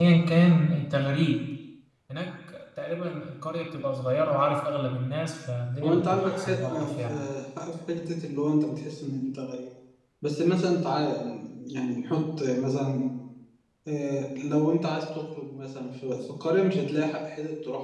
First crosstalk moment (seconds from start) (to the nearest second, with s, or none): 6 s